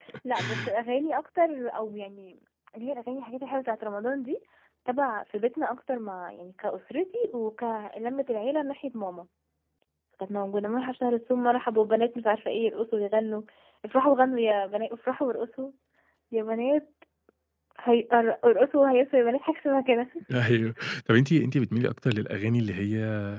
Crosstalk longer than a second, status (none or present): none